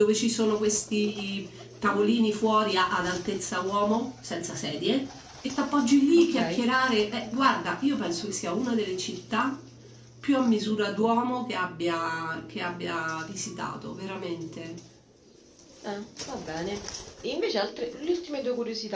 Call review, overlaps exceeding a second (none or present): none